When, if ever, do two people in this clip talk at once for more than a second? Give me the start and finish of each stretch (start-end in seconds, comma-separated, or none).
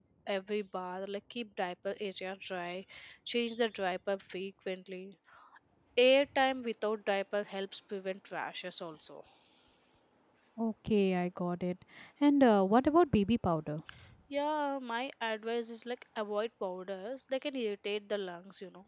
none